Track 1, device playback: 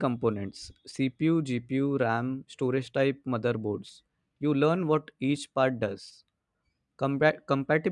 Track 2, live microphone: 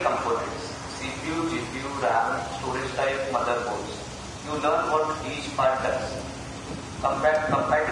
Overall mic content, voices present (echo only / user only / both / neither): echo only